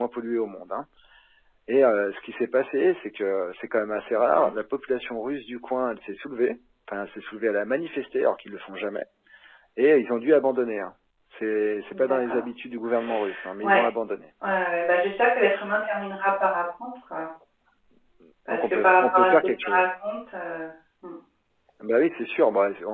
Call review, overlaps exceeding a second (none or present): present